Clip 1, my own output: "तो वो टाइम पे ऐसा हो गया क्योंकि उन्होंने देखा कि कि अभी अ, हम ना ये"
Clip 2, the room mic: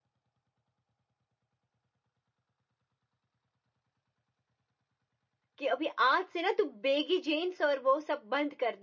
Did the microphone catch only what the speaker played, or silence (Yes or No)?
No